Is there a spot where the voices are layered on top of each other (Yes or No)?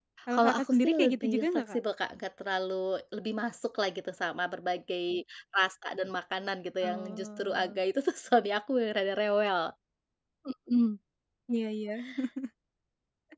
Yes